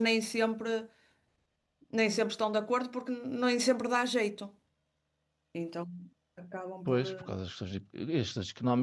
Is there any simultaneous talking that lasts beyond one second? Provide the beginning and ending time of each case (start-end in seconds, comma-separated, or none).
none